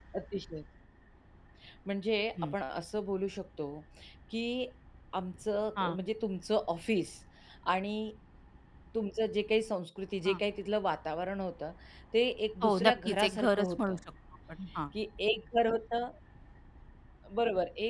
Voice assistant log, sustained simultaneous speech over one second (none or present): present